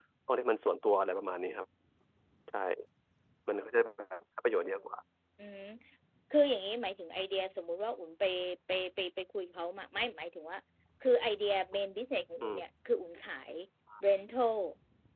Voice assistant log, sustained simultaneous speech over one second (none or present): none